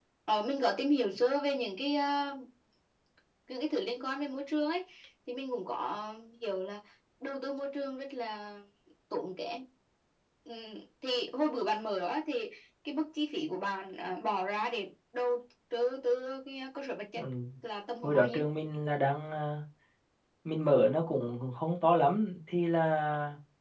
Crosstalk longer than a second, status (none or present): none